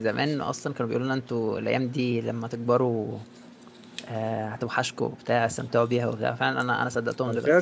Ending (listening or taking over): taking over